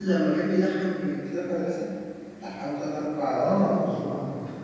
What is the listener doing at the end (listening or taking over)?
taking over